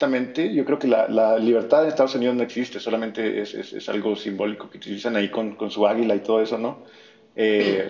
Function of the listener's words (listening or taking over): listening